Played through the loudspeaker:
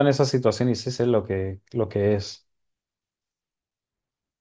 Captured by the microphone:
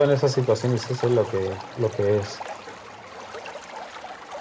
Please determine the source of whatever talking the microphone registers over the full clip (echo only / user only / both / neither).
echo only